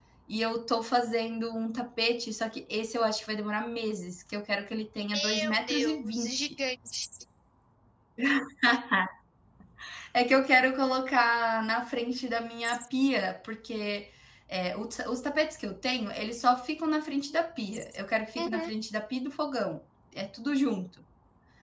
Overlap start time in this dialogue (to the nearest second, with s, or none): 5 s